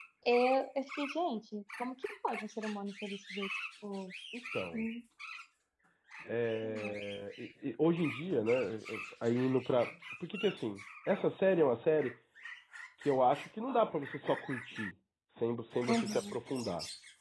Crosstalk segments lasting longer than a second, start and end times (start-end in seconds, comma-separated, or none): none